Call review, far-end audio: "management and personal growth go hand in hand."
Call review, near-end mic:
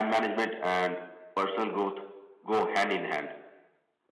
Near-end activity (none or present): none